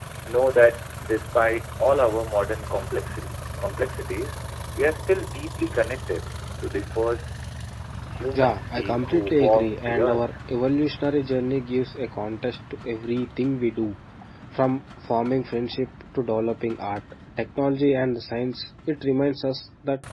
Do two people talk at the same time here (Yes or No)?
Yes